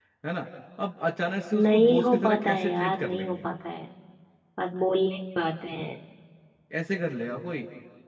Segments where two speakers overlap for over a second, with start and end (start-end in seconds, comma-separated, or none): 1.5-3.4